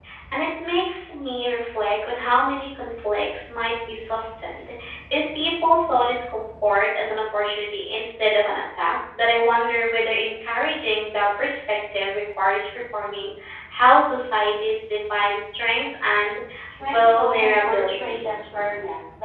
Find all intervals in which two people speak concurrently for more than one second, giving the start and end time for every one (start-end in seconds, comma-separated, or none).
16.8-18.2